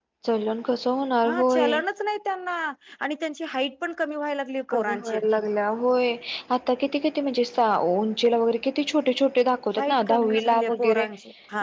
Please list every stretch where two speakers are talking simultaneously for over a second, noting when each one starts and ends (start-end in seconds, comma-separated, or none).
9.8-11.0